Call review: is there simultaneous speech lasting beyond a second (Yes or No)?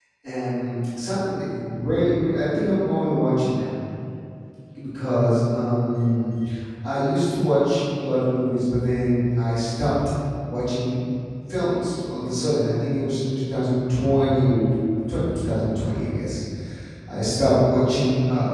No